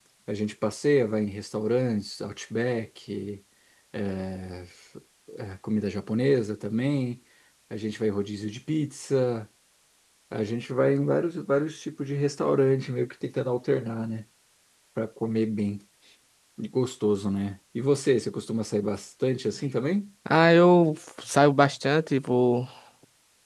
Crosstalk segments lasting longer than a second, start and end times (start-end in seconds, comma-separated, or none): none